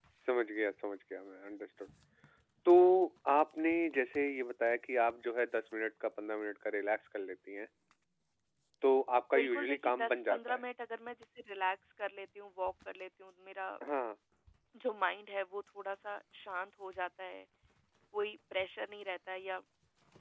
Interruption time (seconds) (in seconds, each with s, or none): 9.3 s